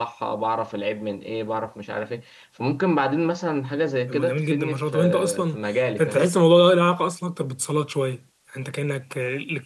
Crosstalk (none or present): present